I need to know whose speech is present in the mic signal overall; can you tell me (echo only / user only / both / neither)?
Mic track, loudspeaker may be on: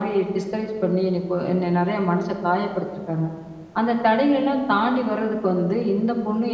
echo only